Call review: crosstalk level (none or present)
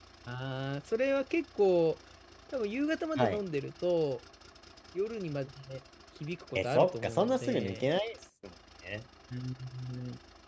present